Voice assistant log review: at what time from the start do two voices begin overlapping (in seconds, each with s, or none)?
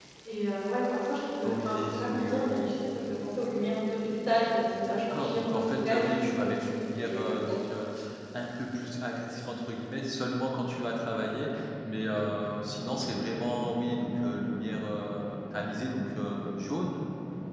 1.4 s